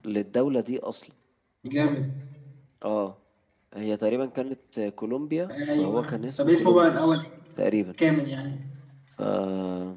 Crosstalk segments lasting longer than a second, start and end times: 5.8-7.2

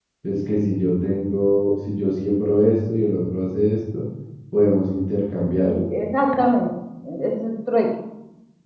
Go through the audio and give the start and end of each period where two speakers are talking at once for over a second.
none

